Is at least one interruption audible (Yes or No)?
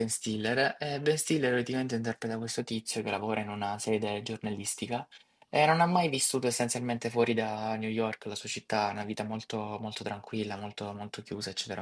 No